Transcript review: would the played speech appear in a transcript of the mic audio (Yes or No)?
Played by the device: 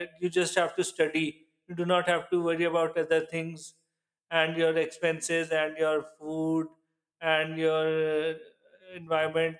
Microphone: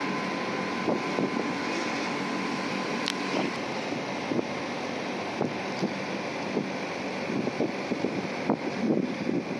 No